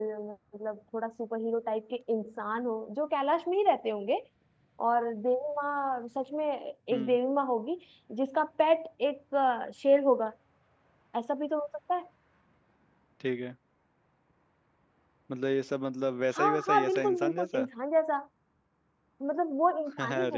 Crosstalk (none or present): present